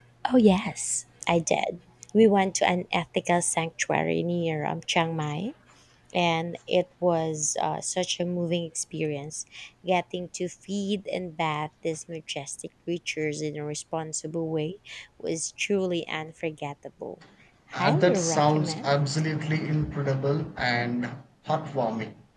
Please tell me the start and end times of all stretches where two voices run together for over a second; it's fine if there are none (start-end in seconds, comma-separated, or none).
17.7-19.0